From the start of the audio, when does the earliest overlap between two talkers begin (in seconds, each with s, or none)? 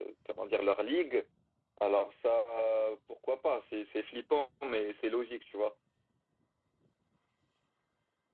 none